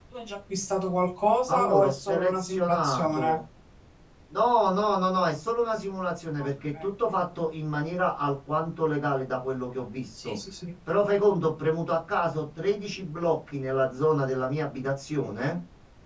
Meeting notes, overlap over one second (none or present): present